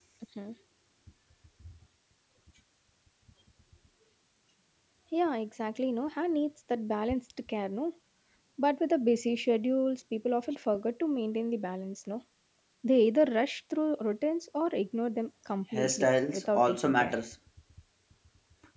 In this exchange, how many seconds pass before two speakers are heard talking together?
16 s

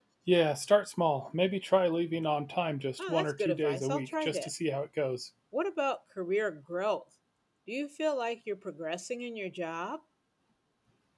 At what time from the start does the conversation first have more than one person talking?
3 s

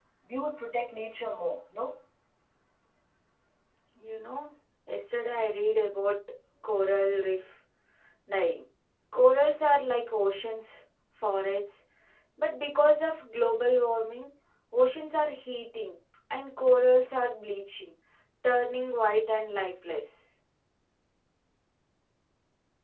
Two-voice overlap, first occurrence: none

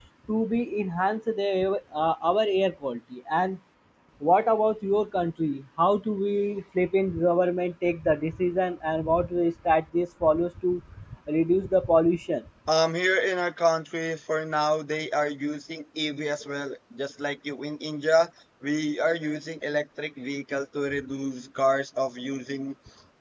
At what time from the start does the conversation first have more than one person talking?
none

